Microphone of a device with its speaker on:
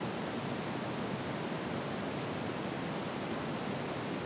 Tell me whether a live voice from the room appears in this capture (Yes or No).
No